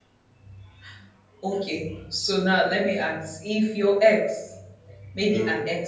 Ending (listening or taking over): listening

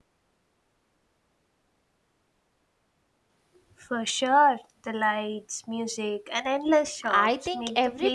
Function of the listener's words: taking over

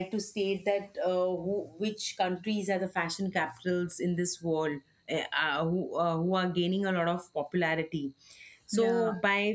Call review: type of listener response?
listening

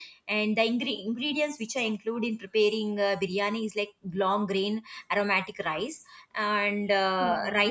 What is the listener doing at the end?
listening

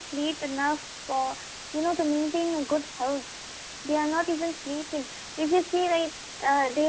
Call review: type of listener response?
listening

